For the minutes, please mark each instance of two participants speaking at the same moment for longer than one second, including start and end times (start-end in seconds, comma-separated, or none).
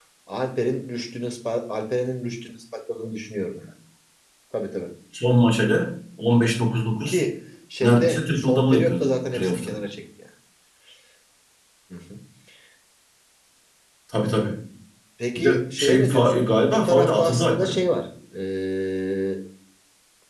7.8-9.7, 15.4-17.8